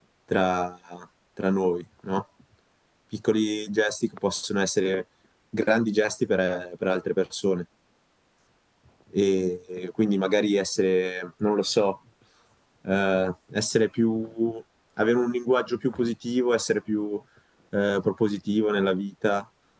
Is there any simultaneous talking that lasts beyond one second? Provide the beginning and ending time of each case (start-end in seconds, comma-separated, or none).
none